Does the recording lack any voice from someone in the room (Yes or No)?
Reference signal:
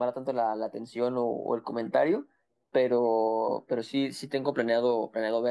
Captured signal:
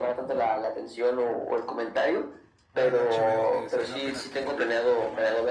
No